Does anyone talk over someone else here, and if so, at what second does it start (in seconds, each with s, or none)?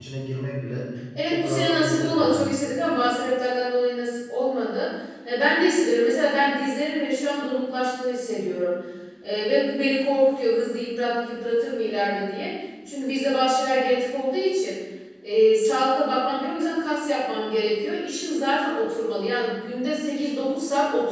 1.3 s